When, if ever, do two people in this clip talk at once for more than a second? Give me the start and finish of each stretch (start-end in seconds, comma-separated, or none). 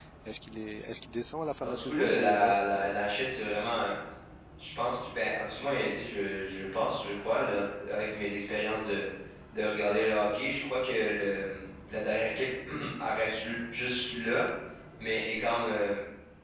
1.6-3.0